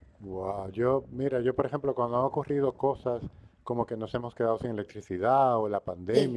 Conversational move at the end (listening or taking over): listening